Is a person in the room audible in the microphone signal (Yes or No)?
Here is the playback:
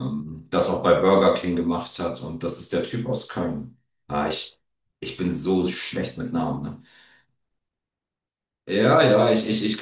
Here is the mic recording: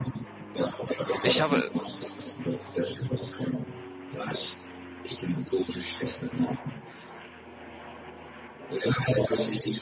Yes